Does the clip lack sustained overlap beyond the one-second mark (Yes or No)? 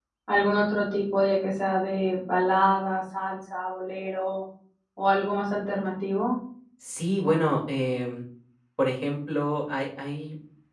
Yes